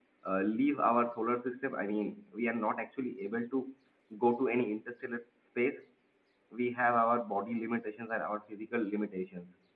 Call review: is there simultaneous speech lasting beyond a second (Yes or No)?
No